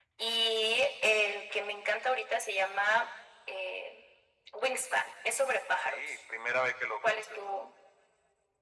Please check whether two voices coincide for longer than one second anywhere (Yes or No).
No